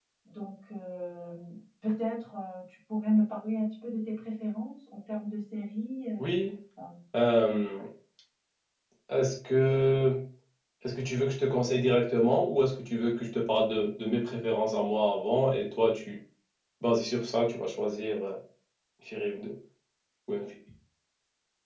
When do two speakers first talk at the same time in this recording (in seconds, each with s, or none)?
none